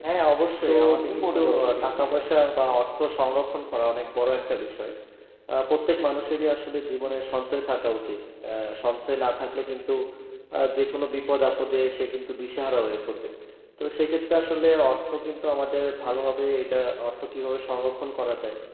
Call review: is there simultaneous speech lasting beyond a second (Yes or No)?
Yes